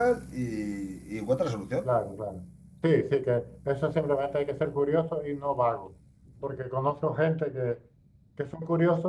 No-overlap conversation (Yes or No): Yes